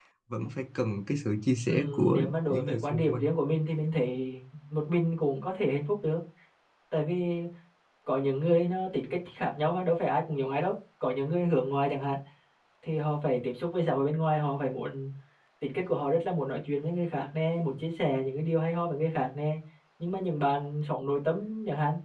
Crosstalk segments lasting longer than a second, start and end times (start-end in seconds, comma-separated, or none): 1.7-3.2